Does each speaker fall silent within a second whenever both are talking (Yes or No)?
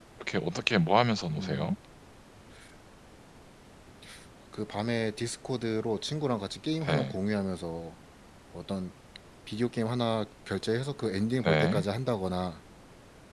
Yes